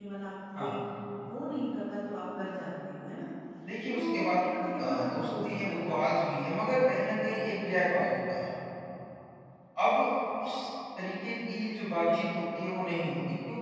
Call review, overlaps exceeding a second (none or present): present